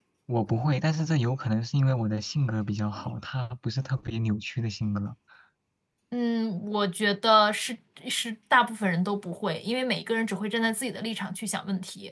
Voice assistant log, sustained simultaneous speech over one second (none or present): none